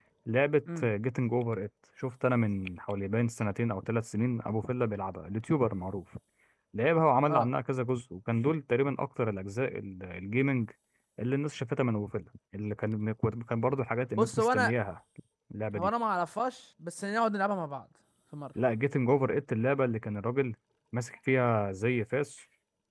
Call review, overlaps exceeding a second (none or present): none